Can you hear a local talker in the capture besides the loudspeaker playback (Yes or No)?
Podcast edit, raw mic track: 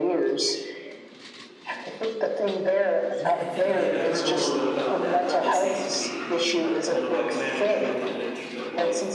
Yes